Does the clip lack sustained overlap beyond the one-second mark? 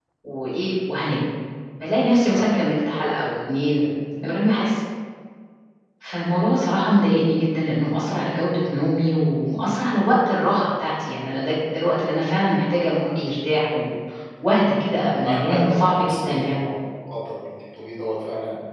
No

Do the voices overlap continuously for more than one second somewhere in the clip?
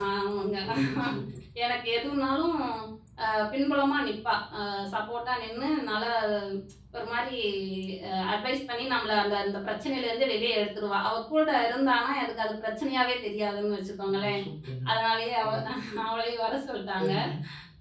No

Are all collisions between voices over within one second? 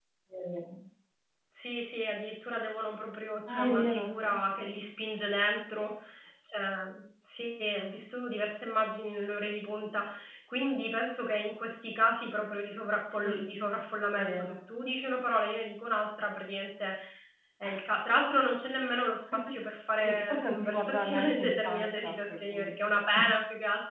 No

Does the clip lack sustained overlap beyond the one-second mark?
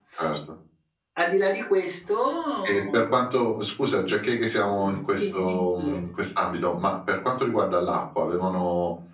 No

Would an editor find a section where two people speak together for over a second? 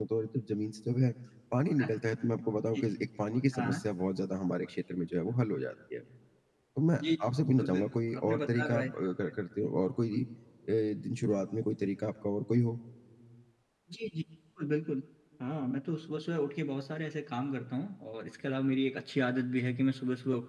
Yes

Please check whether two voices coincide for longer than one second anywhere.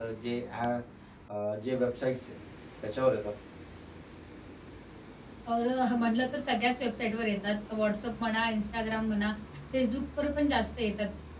No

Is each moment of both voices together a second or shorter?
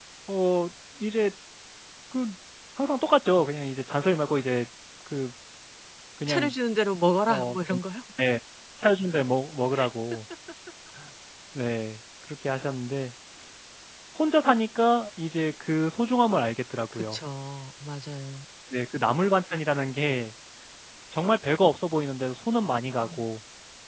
Yes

